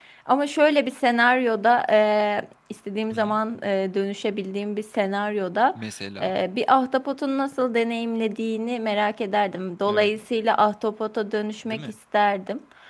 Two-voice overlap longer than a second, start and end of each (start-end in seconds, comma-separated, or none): none